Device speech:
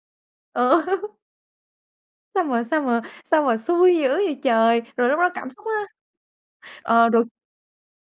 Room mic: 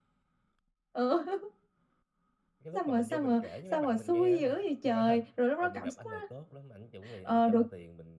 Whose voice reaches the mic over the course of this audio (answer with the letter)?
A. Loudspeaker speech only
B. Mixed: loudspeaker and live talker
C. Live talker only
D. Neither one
B